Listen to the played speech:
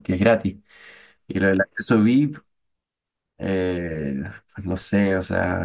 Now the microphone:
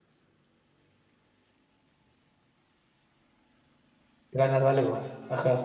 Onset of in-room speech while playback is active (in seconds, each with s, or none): 4.3 s